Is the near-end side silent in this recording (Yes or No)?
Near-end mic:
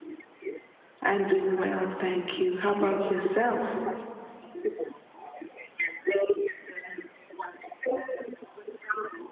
No